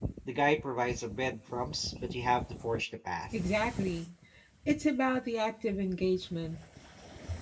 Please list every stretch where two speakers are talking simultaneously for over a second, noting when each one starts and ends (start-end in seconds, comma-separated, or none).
none